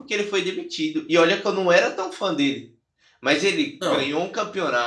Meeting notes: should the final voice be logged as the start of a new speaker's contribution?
No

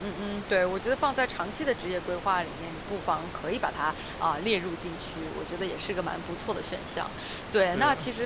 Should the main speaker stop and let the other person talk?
No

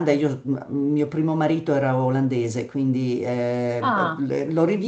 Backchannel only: Yes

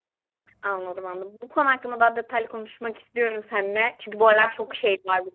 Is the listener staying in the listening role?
Yes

